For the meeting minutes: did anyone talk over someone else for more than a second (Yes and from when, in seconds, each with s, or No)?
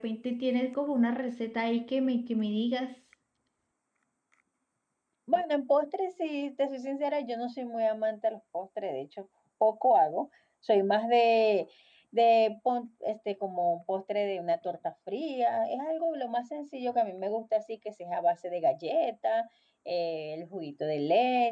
No